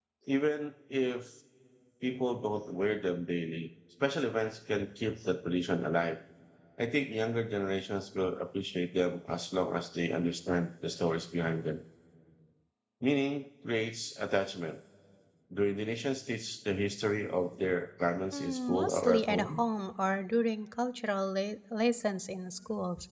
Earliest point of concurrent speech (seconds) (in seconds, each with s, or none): 18.3 s